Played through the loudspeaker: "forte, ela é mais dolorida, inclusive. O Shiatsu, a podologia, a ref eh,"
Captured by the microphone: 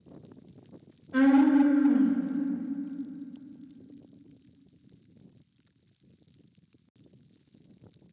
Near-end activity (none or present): present